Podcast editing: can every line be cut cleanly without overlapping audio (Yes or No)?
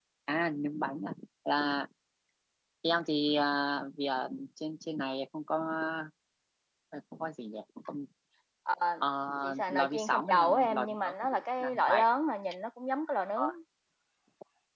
No